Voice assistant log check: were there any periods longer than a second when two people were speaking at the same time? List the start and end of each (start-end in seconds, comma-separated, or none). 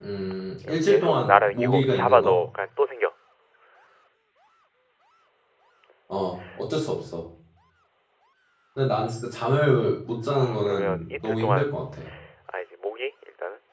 0.6-2.4, 10.3-11.7